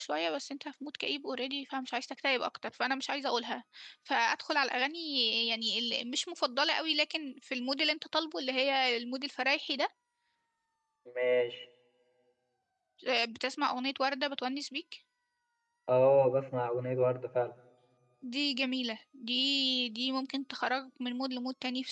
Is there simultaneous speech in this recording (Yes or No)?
No